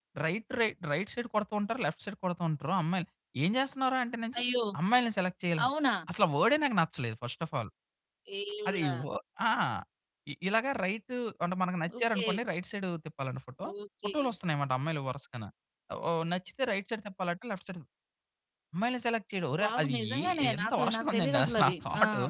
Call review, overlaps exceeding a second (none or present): present